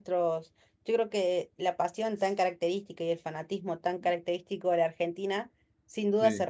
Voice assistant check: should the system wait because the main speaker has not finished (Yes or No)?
Yes